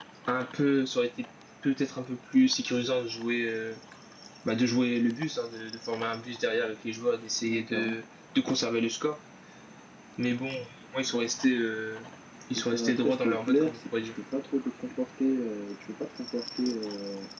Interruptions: present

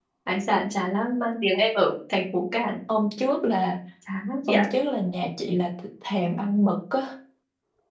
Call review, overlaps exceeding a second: none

